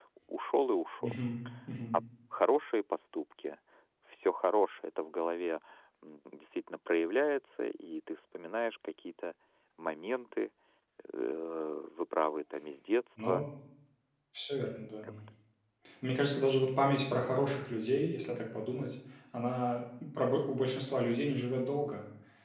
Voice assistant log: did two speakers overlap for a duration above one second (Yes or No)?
No